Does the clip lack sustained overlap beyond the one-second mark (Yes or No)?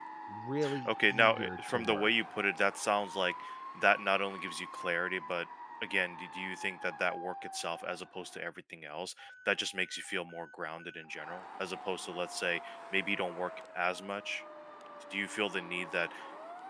No